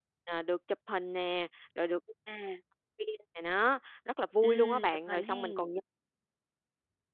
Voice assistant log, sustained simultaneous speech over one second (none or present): present